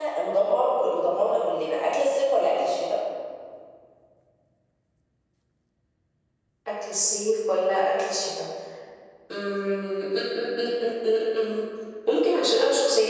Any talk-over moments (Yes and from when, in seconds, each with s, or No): No